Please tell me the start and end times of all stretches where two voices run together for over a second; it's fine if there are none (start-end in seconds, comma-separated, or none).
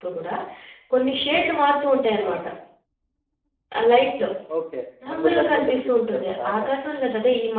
5.1-6.7